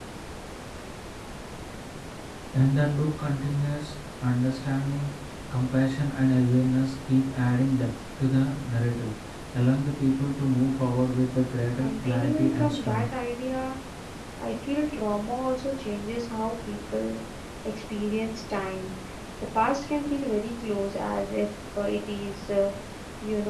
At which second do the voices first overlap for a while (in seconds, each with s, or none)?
11.8 s